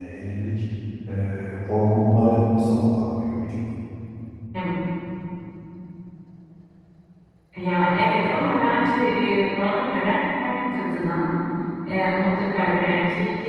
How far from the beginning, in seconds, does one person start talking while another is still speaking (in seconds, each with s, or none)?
none